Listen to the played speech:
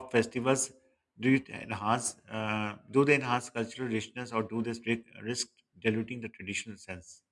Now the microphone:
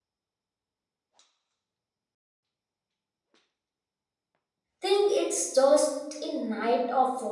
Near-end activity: present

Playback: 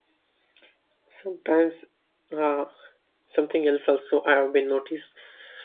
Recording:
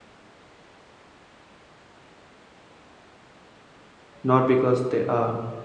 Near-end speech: present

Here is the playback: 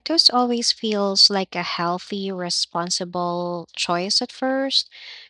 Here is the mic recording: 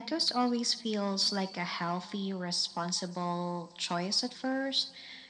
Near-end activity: none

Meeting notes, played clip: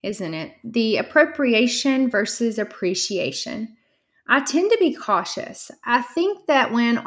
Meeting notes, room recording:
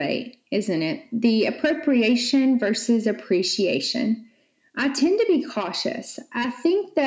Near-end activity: none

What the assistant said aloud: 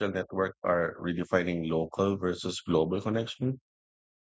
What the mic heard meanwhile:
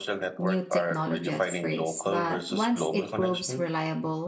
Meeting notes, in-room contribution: present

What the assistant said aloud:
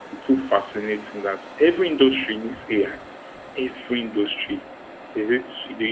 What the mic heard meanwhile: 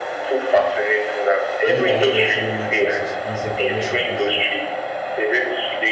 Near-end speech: present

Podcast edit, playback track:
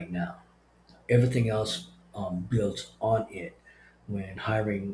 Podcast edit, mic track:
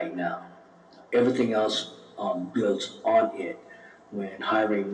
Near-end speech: none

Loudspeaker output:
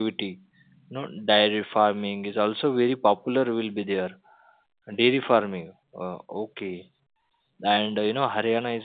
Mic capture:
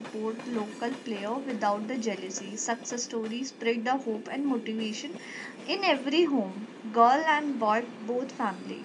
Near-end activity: present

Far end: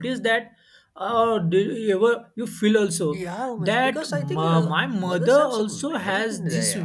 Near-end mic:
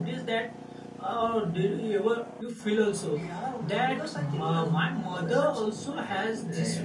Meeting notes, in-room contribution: none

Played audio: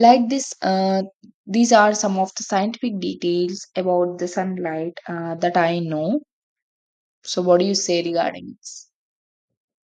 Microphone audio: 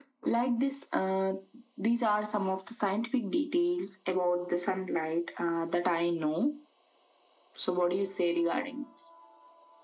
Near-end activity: none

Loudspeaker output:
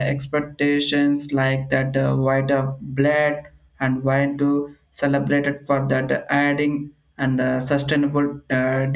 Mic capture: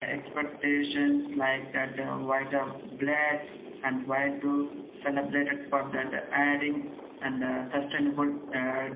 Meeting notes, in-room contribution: none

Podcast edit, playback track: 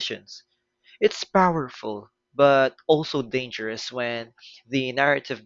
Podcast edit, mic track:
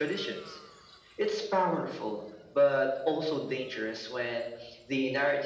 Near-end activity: none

